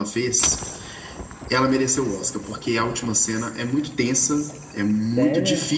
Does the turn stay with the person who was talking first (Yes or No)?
Yes